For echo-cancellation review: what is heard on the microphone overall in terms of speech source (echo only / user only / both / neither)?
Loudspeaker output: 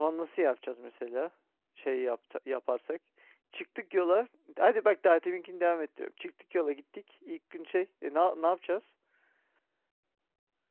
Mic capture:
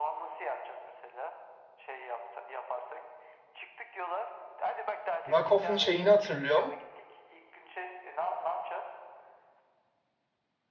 both